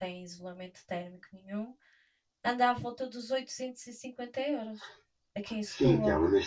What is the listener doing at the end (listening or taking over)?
taking over